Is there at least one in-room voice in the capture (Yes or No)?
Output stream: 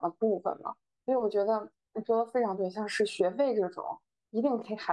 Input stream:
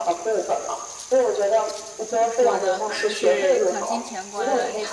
Yes